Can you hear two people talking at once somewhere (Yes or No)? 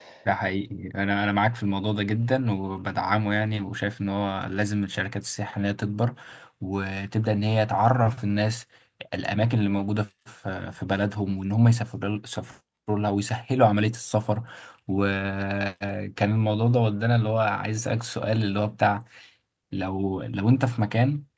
No